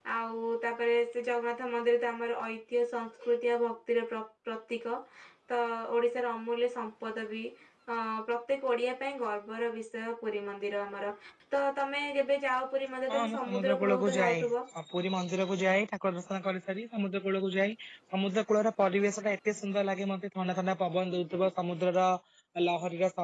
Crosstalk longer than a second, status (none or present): present